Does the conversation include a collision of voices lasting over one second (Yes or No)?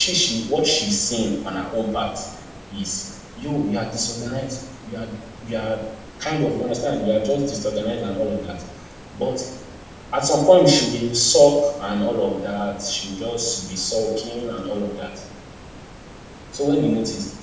No